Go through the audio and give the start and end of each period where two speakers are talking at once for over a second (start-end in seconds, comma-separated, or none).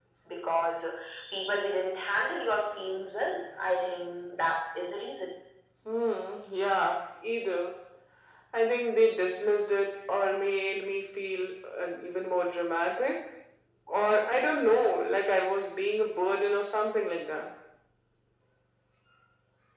none